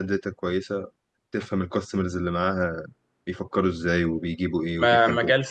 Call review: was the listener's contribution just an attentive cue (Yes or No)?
No